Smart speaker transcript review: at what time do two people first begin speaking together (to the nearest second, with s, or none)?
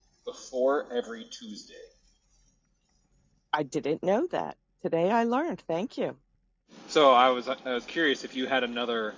none